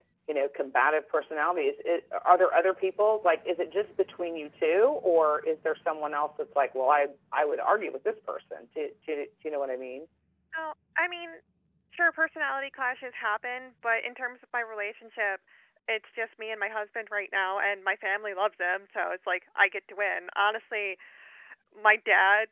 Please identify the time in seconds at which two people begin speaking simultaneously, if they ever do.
none

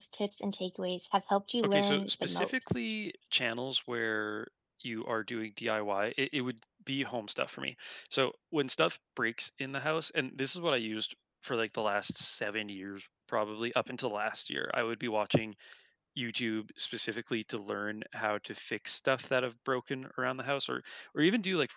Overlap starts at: 2 s

